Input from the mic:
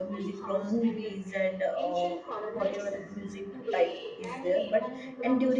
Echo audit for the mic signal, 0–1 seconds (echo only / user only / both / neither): both